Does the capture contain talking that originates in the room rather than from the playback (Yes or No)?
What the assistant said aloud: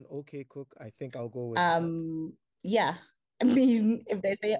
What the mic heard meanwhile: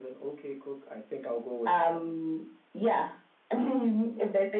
No